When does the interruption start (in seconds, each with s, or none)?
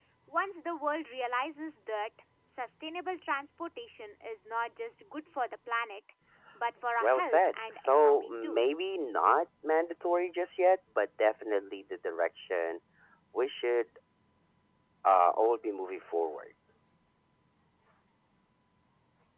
7.0 s